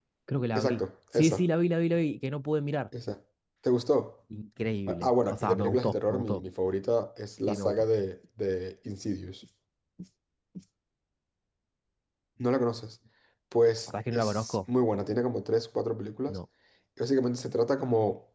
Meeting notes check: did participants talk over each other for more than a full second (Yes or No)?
Yes